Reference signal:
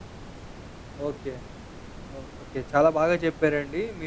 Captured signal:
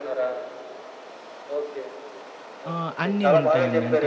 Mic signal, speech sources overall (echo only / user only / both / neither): both